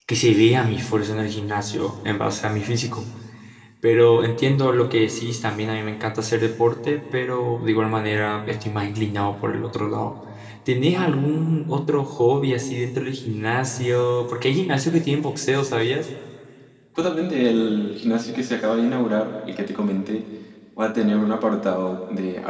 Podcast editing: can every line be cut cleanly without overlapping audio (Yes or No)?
Yes